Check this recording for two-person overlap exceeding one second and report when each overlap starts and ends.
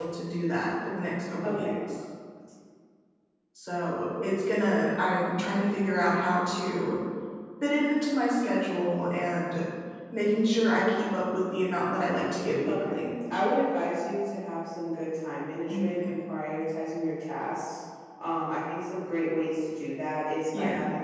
none

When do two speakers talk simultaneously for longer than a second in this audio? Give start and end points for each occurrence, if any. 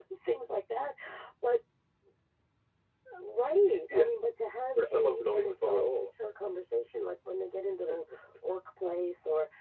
4.8-6.1

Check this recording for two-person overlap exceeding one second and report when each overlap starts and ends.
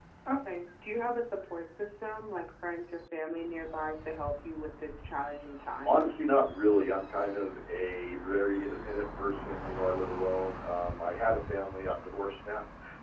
none

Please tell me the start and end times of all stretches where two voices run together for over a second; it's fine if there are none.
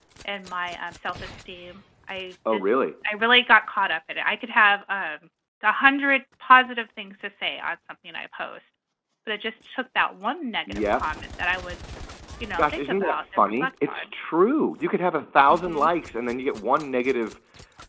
12.6-14.0

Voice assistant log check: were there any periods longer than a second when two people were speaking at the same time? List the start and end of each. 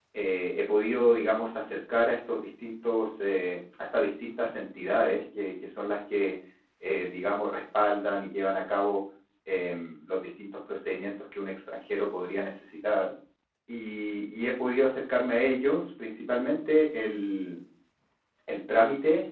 none

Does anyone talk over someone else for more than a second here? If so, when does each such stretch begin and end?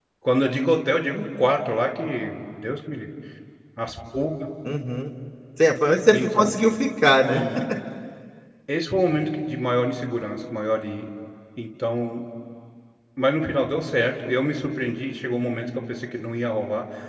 none

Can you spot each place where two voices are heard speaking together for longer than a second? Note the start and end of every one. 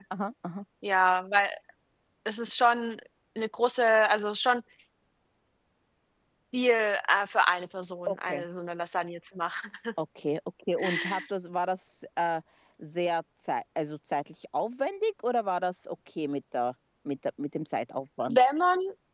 none

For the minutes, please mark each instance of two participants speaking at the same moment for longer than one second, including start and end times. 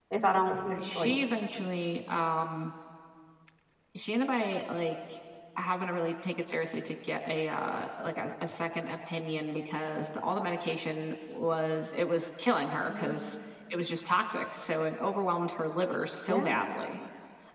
none

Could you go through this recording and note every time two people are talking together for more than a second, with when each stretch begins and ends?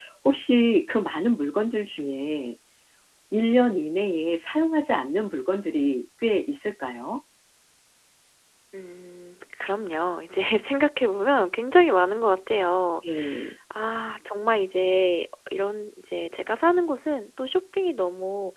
none

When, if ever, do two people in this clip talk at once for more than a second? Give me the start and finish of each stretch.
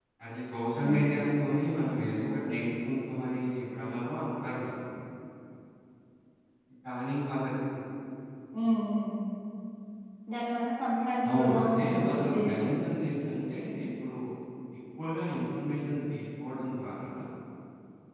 11.3-12.7

